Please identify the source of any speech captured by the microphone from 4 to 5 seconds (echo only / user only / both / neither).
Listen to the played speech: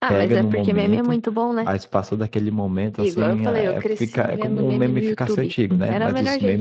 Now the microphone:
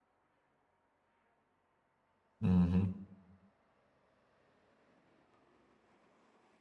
neither